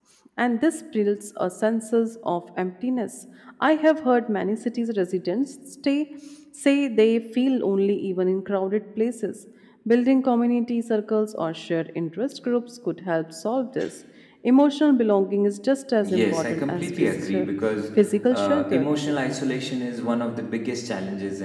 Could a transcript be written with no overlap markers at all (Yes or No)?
No